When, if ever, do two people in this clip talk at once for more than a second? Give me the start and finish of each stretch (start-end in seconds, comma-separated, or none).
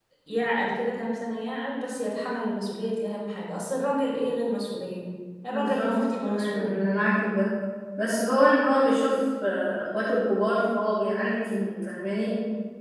5.5-6.8